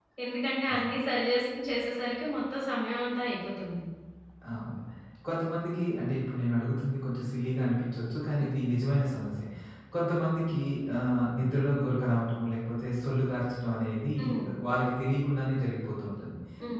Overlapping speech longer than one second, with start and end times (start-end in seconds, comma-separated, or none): none